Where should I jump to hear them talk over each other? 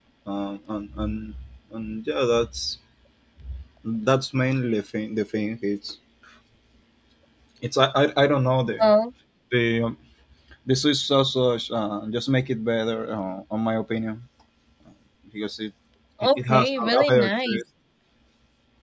16.4 s

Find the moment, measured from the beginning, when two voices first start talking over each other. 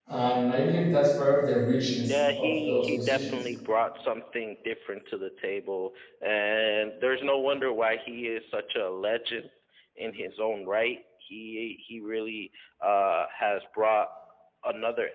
2.0 s

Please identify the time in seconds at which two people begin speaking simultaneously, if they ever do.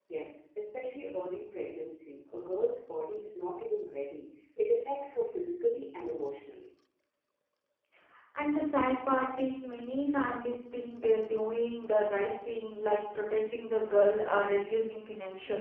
none

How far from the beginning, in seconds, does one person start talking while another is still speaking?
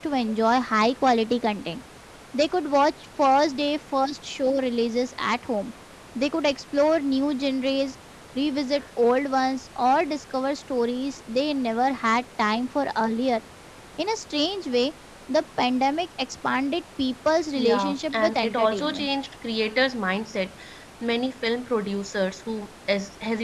17.6 s

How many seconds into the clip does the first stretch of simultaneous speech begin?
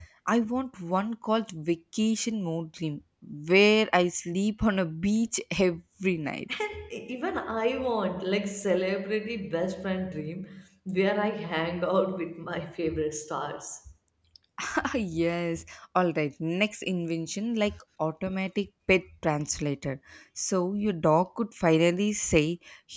none

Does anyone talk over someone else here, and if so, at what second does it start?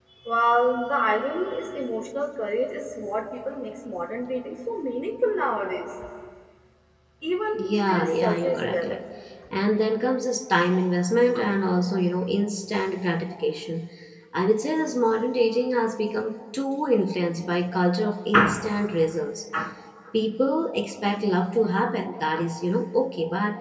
7.5 s

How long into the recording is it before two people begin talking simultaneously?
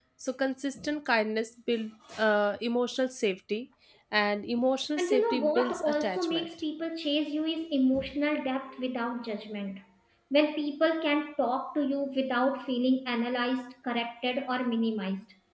5.0 s

